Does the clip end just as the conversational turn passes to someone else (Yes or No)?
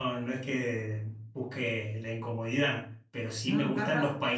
No